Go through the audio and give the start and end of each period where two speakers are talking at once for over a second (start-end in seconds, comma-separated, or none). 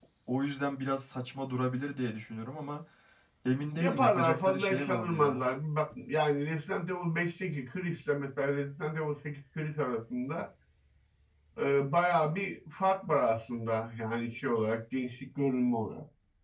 3.8-5.4